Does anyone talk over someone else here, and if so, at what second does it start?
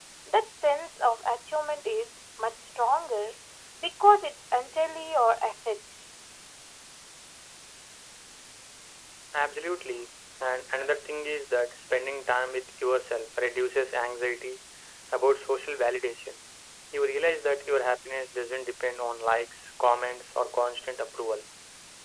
none

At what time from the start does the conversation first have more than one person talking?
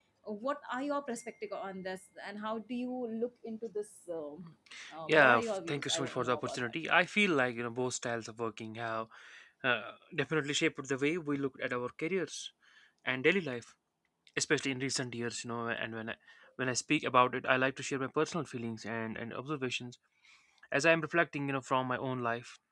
5.1 s

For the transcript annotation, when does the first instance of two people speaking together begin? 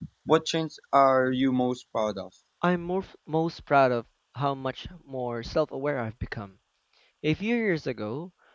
none

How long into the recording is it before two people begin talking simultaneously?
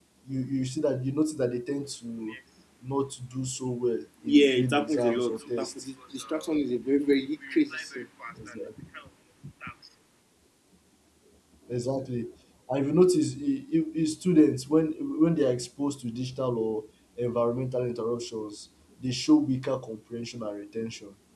4.3 s

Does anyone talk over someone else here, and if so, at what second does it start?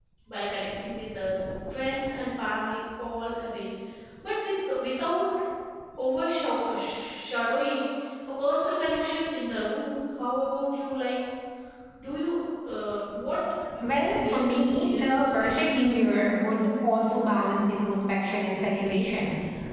13.8 s

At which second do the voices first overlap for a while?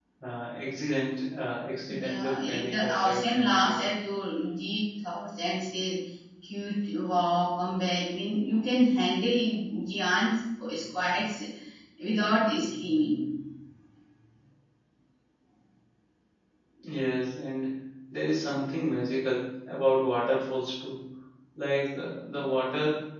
1.9 s

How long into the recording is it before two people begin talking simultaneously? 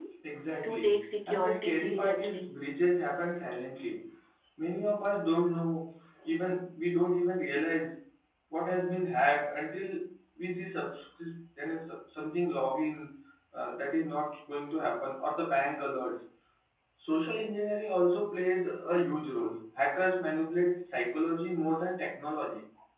0.6 s

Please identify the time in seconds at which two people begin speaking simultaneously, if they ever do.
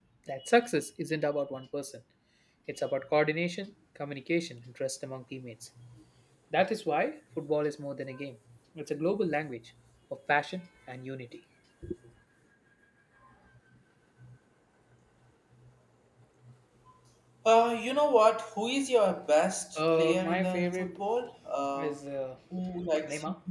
19.8 s

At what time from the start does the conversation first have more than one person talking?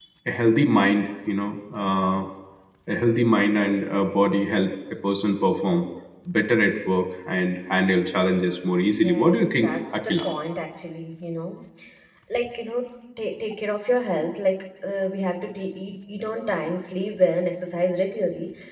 8.9 s

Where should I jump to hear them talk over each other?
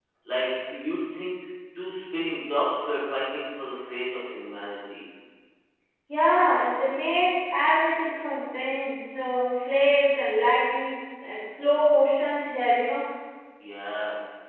none

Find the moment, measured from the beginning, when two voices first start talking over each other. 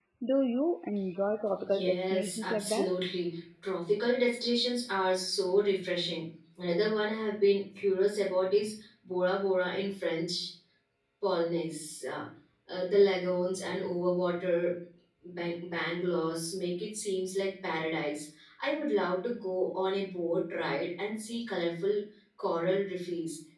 1.6 s

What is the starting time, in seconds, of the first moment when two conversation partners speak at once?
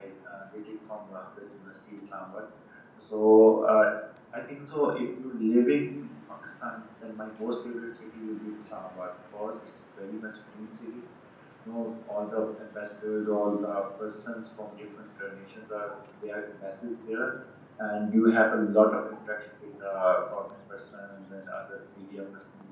none

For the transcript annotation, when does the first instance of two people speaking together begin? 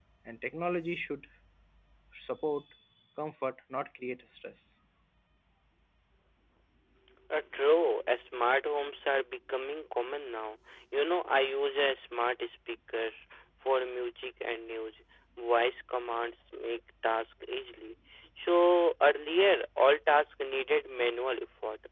none

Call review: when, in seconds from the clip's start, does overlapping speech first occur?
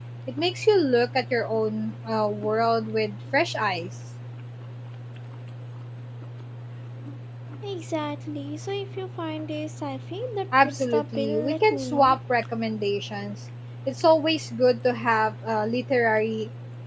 10.5 s

